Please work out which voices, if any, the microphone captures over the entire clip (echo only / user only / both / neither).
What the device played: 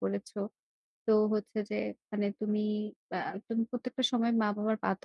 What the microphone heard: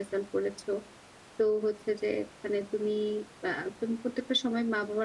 echo only